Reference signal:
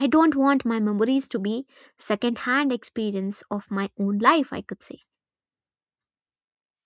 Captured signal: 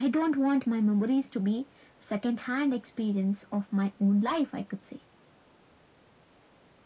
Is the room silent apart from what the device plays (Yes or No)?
Yes